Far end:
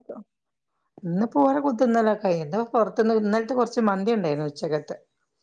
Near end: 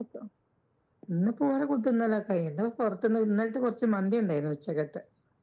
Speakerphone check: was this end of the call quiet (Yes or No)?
Yes